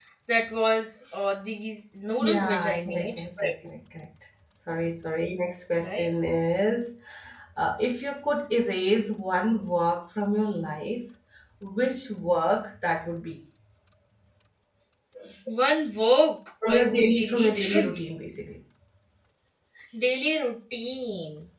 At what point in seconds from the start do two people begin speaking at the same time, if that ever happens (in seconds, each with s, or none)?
2.2 s